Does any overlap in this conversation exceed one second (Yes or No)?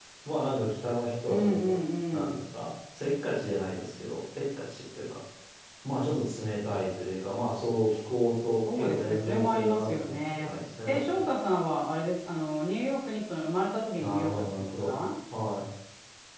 Yes